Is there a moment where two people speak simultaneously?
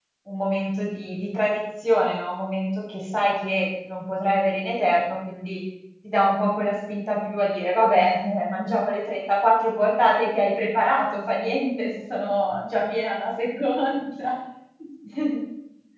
No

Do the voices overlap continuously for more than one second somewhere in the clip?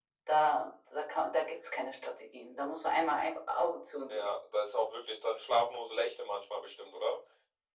No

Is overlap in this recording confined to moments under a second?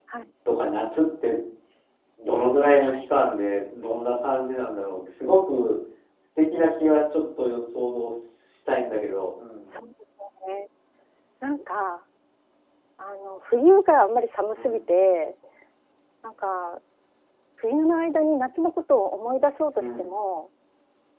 Yes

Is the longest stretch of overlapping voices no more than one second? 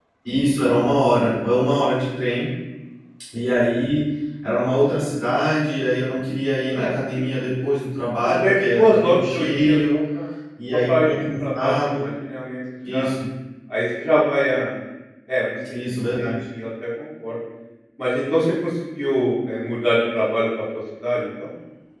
No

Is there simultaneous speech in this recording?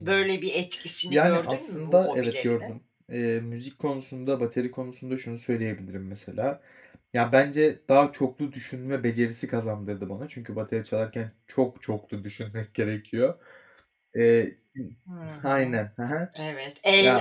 Yes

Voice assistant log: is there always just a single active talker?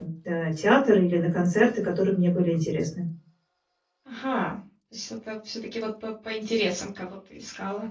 Yes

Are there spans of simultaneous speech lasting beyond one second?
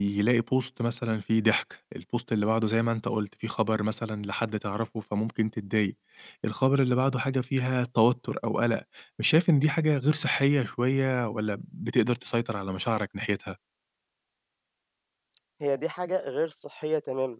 No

